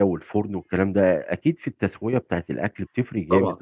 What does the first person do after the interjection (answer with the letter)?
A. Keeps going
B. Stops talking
A